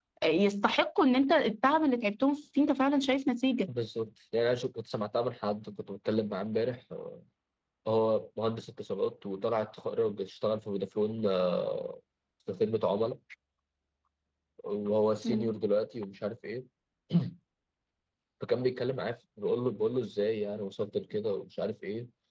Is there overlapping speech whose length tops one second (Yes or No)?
No